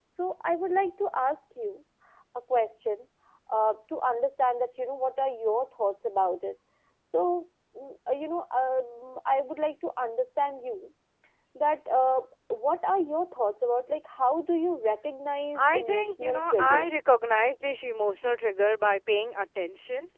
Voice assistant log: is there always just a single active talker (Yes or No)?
No